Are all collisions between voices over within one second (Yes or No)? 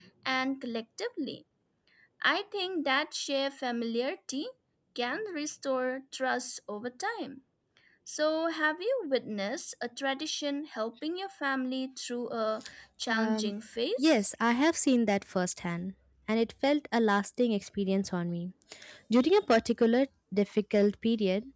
Yes